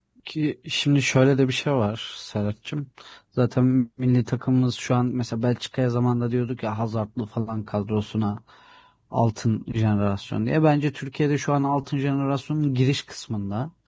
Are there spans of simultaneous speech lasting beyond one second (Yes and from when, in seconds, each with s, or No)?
No